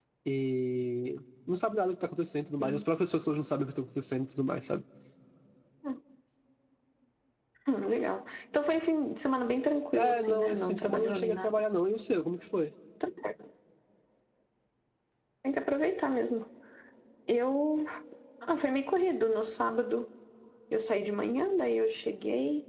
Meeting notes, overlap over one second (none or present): present